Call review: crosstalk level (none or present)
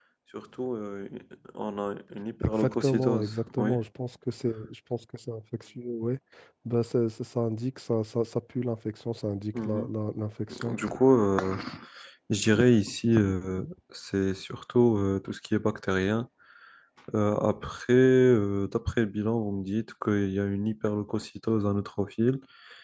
present